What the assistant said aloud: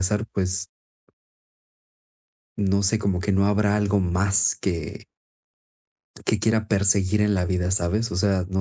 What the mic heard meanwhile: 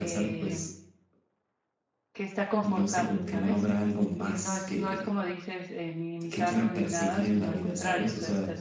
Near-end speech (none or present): present